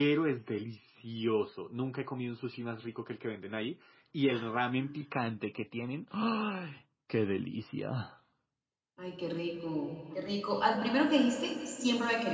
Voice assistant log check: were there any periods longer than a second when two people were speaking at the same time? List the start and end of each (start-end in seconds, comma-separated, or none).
none